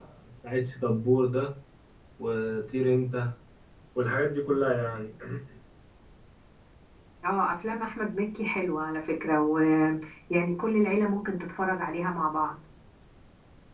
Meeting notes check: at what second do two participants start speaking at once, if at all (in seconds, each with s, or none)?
none